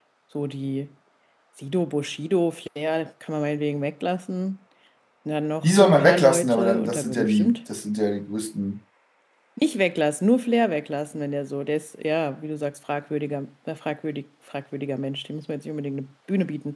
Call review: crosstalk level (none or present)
present